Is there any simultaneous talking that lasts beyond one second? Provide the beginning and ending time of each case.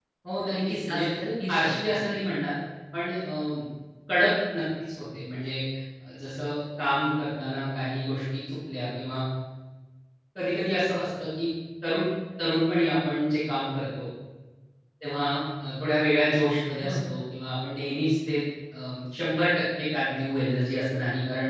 0.5-2.0

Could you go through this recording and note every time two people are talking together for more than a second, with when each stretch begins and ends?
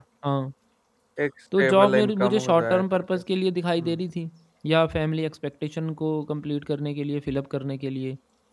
1.6-3.2

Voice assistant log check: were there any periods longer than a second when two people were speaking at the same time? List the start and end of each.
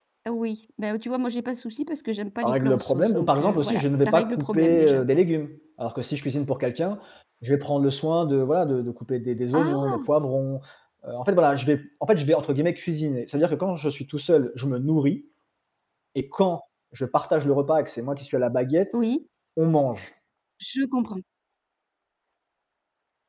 2.4-5.0

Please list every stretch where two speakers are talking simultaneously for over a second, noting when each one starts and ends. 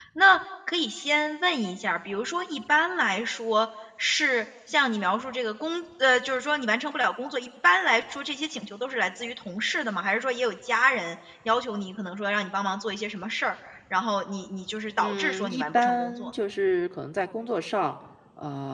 15.0-16.3

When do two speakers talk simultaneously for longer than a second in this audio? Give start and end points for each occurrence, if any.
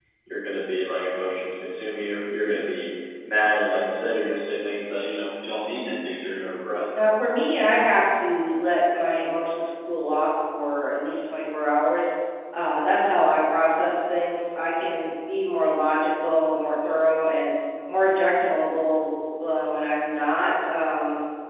none

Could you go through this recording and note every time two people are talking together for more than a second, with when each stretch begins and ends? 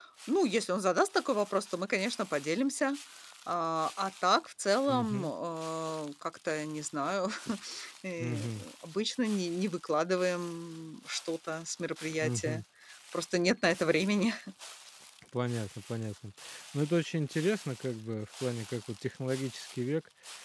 none

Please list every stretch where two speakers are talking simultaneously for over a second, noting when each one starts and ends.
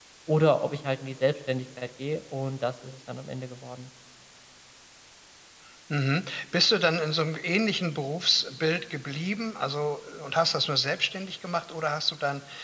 none

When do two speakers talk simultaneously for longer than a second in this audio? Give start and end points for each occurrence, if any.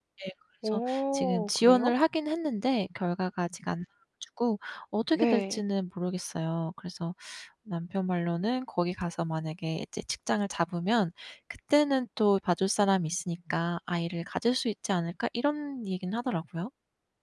0.7-1.9

